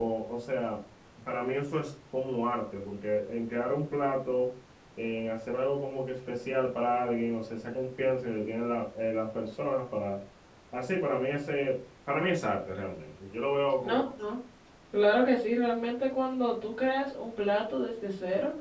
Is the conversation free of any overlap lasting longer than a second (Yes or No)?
Yes